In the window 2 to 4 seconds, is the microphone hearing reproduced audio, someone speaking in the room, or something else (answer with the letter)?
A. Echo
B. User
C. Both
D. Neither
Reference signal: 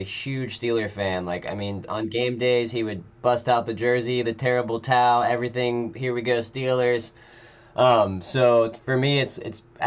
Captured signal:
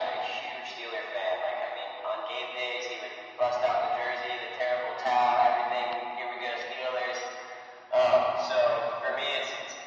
A